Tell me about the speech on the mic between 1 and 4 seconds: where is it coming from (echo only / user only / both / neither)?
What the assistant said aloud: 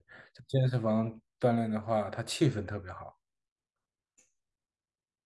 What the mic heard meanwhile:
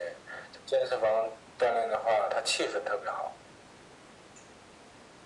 echo only